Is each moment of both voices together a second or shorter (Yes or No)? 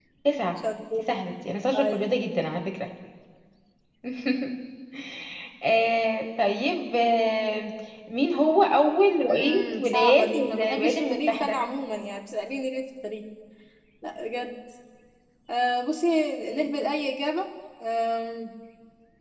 No